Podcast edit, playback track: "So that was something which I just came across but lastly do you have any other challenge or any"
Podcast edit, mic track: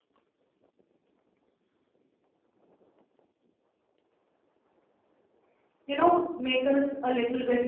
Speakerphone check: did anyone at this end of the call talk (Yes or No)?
Yes